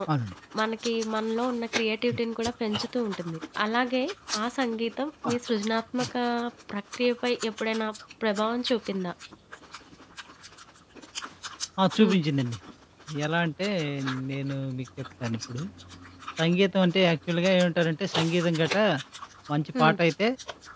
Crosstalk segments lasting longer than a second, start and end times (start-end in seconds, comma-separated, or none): none